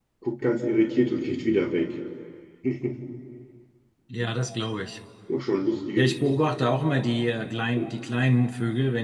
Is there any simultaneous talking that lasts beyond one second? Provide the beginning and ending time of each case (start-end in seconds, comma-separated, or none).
none